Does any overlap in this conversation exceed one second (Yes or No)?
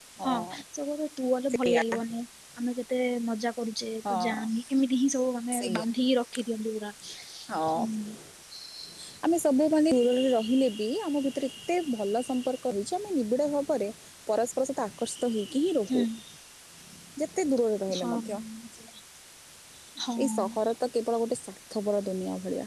No